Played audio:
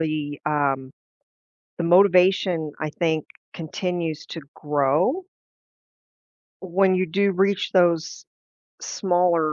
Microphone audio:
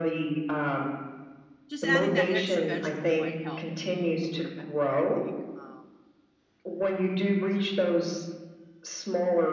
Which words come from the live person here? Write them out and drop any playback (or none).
just adding that extra vegetable might help me a little bit more, I think, because